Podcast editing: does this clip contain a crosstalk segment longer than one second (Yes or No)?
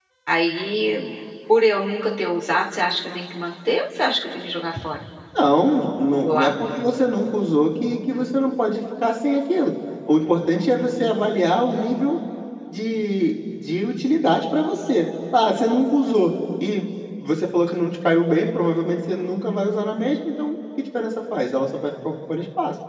No